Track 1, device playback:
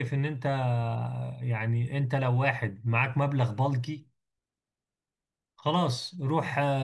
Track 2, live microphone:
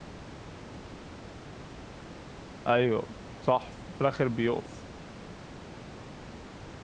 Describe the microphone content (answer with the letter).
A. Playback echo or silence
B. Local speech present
B